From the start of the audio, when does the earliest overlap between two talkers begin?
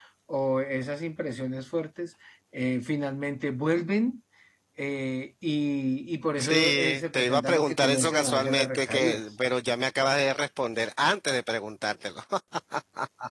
6.4 s

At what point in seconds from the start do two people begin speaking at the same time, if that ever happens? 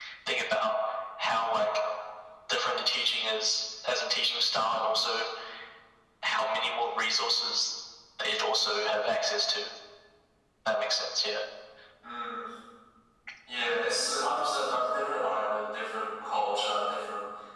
none

